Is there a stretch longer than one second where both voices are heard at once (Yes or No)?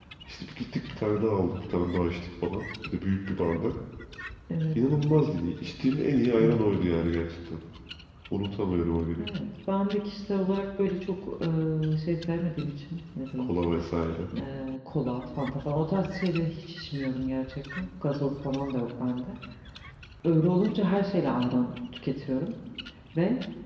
No